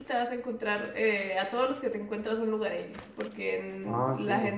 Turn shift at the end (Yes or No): No